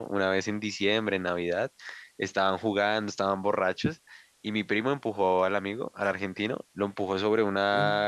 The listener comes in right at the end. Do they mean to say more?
No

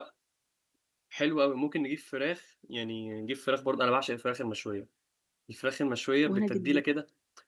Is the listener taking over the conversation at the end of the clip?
No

